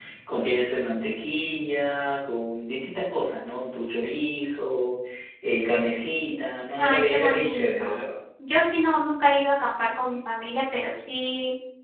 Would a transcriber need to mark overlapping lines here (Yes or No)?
Yes